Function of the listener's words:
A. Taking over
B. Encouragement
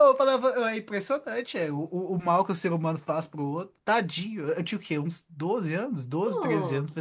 B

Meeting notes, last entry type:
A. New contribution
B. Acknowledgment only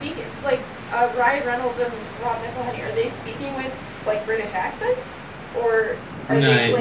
A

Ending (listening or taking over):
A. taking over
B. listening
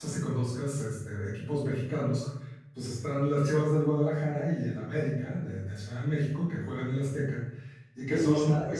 A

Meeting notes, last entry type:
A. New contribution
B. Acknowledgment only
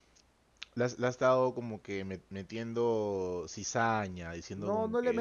A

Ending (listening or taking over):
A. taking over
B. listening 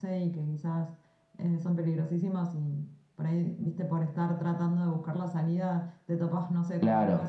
B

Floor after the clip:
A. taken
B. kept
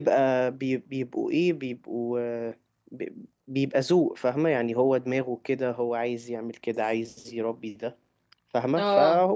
B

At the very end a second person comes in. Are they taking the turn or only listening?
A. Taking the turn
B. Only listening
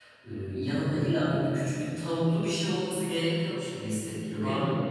A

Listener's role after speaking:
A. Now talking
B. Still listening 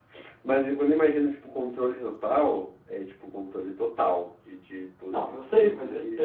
A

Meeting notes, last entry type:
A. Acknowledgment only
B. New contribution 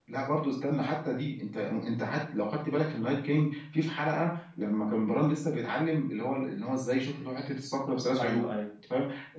A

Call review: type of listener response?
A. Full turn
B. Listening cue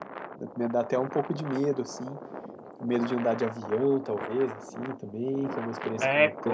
A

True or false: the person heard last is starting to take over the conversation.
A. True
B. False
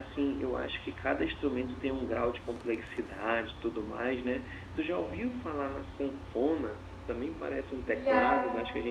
B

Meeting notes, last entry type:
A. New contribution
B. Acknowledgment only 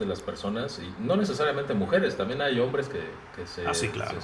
B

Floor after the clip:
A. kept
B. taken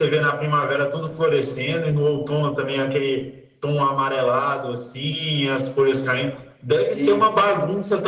A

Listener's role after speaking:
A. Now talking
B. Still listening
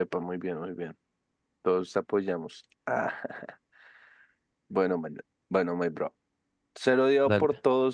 B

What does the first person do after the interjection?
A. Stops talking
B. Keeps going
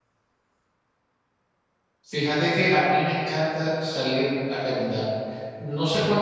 B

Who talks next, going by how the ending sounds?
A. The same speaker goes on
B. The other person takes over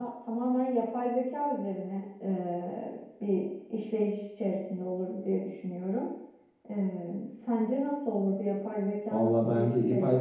B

